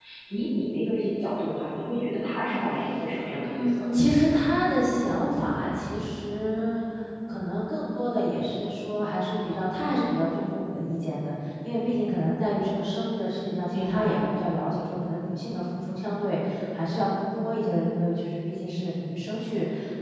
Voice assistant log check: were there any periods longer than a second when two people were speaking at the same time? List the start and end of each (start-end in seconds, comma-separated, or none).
none